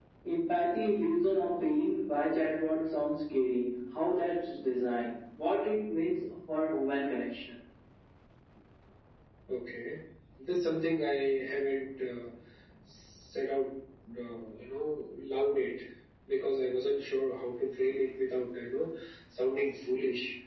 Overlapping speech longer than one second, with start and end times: none

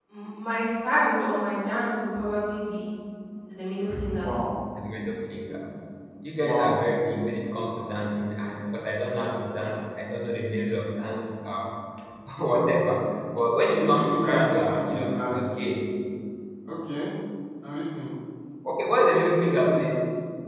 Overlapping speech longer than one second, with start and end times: 13.7-15.4

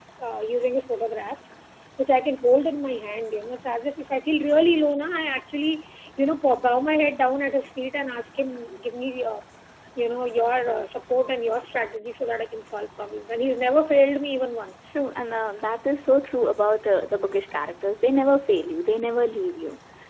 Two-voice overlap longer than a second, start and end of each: none

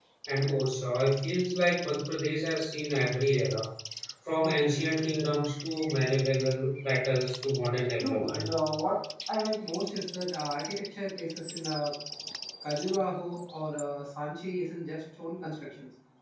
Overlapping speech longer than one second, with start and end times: none

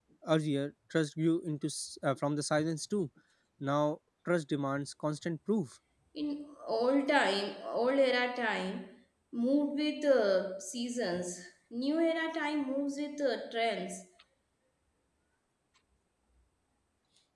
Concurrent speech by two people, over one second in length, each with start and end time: none

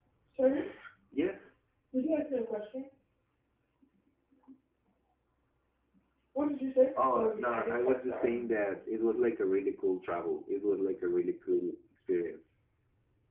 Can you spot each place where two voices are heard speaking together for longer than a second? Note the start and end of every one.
7.0-8.7

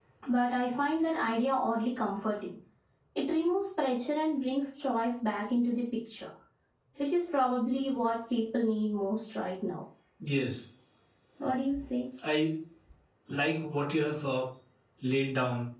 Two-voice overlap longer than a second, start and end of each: none

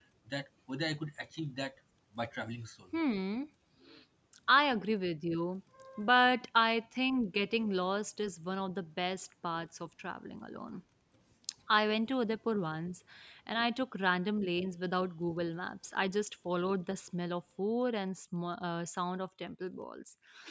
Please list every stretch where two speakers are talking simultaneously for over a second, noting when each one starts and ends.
none

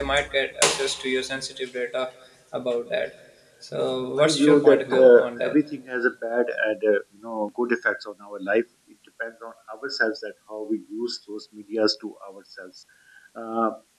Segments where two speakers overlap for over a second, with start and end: 4.2-5.5

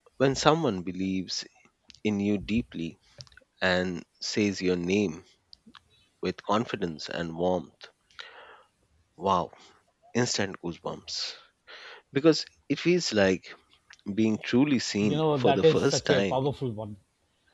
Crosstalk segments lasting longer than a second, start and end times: 15.0-16.4

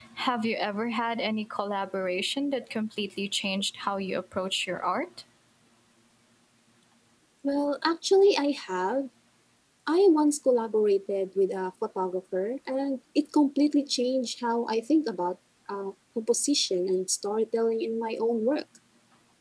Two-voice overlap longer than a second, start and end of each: none

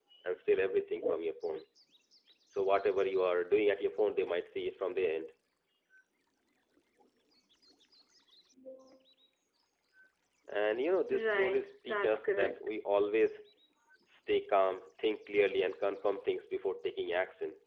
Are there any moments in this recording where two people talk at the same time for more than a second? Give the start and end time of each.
11.1-12.6

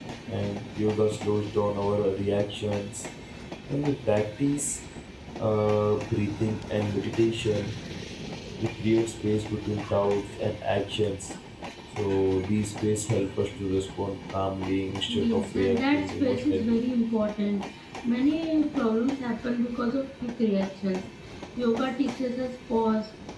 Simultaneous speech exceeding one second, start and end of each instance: 15.1-16.8

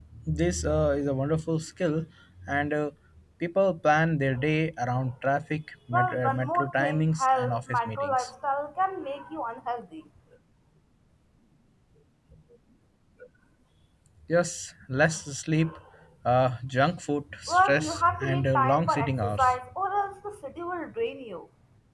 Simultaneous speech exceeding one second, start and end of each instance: 5.9-8.3, 17.5-19.6

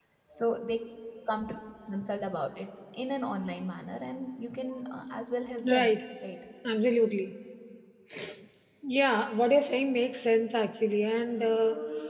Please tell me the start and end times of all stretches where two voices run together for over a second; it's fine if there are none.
none

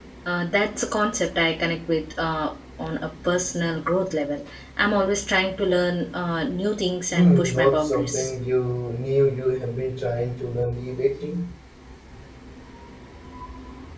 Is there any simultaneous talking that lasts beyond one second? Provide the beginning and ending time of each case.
7.1-8.3

